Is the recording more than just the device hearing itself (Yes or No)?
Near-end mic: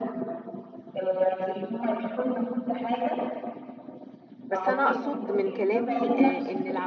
Yes